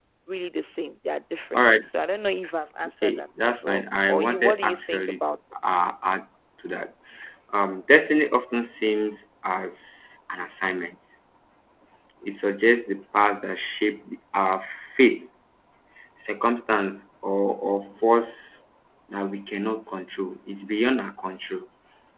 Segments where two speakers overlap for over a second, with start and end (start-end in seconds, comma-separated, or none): 3.0-5.3